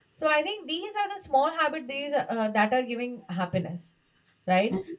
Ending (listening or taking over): listening